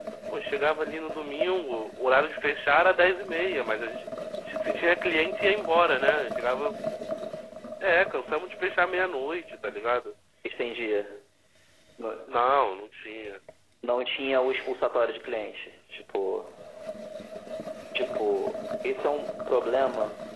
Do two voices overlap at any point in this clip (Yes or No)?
No